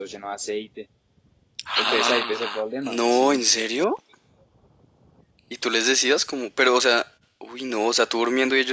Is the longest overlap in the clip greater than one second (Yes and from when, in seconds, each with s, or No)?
Yes, from 1.8 s